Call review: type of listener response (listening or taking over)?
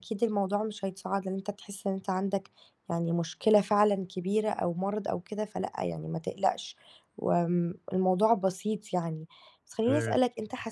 listening